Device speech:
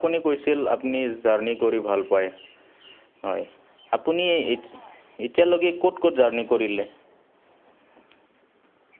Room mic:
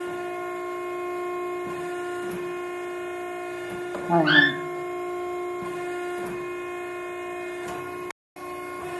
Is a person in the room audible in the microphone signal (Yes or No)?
Yes